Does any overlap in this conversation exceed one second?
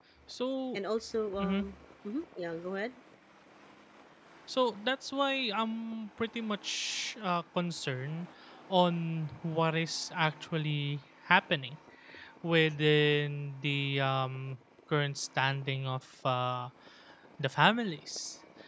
No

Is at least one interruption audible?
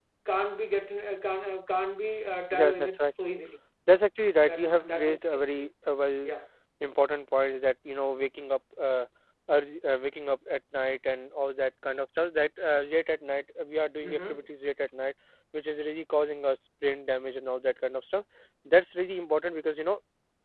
Yes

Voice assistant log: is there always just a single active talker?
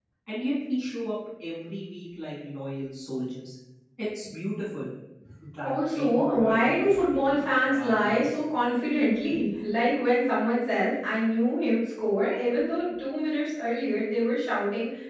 No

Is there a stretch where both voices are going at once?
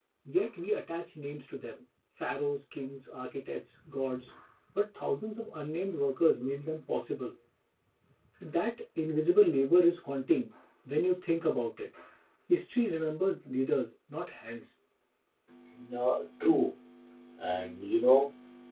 No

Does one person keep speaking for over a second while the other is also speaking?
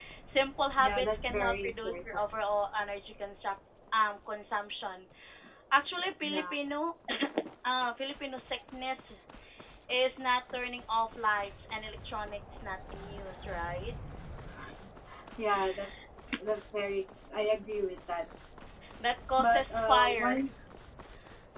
Yes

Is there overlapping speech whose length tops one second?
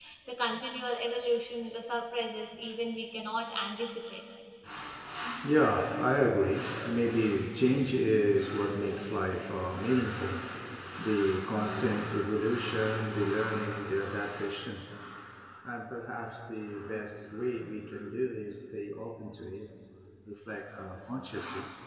No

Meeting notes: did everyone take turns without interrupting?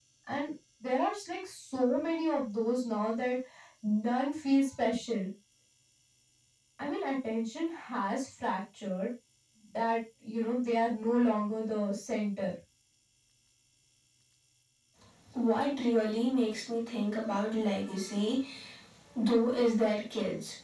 Yes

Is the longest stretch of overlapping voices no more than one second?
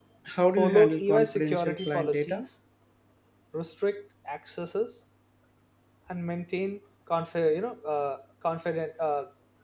No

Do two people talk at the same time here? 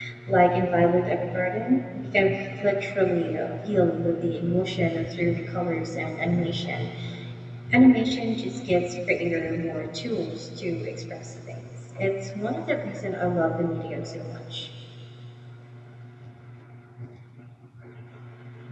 No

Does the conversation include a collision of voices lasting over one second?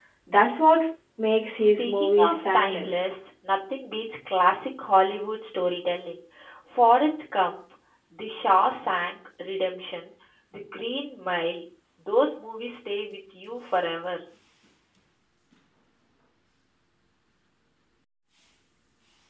Yes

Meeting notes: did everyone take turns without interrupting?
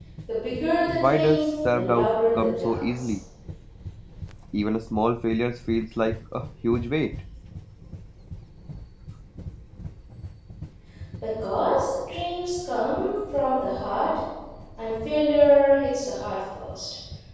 No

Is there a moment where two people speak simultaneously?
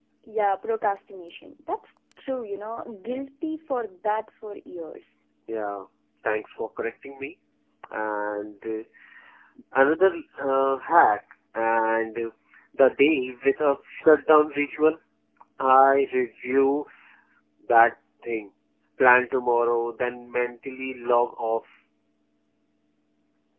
No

